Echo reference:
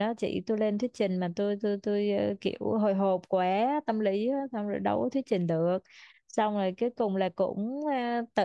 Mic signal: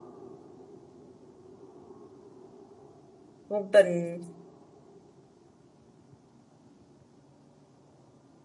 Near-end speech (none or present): present